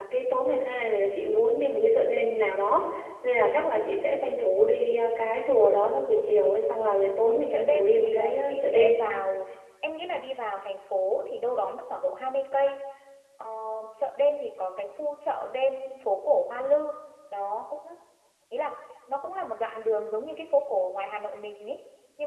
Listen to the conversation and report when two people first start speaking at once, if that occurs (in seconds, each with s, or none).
7.3 s